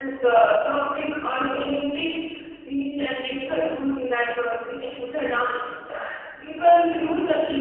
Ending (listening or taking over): listening